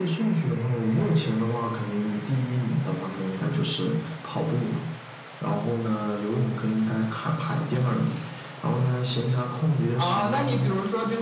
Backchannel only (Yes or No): No